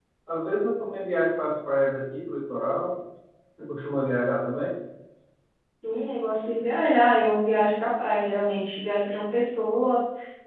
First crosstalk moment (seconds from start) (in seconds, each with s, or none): none